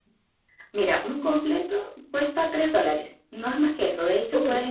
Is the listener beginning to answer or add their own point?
No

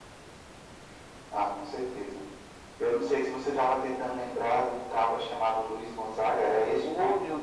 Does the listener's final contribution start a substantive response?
Yes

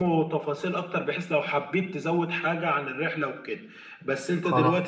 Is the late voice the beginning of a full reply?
No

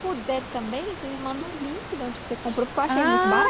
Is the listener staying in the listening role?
No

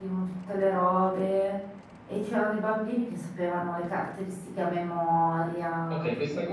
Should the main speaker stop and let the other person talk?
Yes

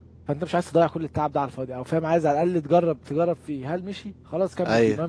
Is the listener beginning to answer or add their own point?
No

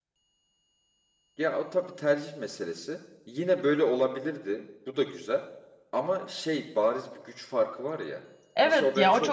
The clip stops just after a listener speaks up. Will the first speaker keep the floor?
No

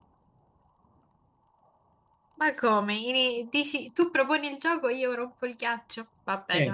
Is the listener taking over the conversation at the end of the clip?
Yes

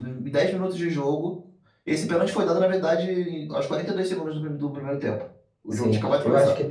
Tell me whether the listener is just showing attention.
No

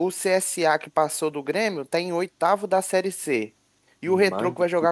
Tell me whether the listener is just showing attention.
Yes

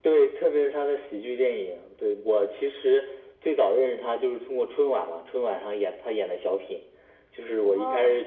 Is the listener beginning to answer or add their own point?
No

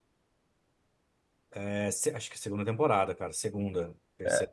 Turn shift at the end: Yes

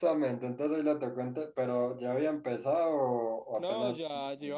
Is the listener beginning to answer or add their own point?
Yes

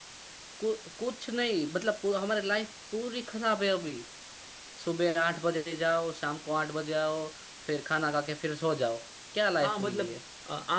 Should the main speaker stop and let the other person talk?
Yes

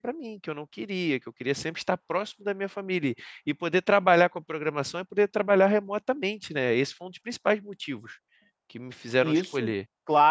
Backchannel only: No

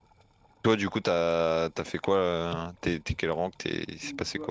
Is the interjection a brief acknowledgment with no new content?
No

